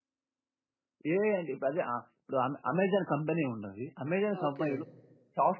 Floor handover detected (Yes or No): No